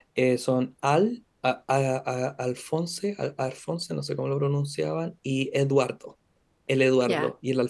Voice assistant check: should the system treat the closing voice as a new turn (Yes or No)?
Yes